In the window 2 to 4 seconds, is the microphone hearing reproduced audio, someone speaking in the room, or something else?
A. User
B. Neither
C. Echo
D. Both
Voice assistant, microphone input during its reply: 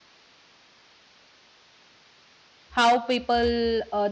A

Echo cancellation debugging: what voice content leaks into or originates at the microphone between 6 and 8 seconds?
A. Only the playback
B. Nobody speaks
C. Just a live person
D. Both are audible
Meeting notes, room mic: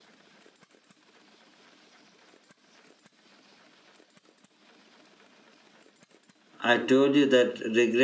C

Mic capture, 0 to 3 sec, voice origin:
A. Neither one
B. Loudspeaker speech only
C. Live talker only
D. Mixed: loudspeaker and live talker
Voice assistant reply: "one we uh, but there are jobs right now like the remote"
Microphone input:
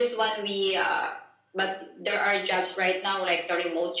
B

